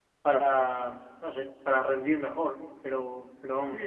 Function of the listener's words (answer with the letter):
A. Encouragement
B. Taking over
B